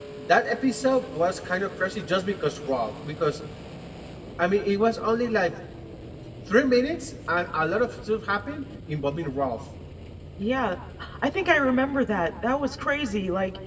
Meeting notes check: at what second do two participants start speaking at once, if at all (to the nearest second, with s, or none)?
none